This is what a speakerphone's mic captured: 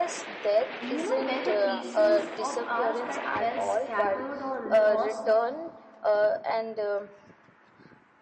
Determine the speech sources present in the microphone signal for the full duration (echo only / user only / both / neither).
both